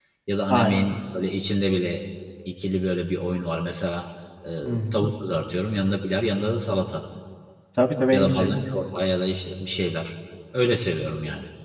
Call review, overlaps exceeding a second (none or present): none